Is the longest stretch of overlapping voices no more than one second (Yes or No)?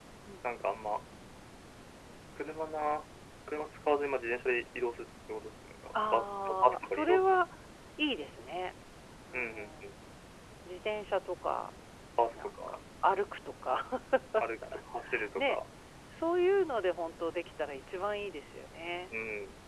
No